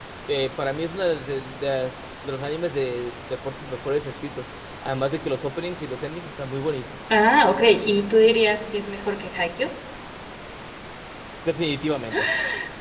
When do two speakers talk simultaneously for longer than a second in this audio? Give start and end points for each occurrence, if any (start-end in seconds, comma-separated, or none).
none